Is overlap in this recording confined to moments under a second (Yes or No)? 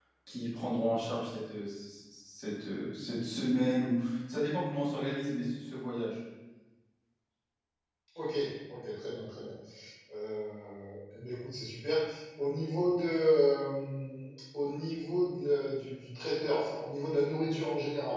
Yes